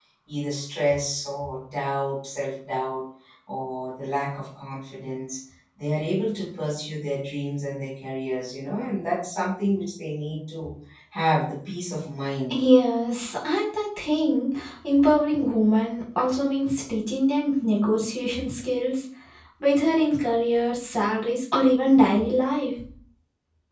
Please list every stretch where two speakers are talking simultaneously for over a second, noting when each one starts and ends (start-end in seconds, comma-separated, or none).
none